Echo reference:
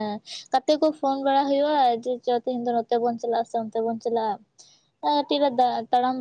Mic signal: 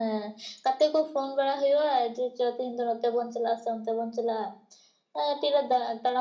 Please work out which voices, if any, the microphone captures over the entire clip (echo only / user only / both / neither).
echo only